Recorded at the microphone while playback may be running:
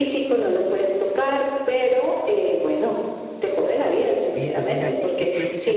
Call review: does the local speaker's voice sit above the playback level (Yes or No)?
No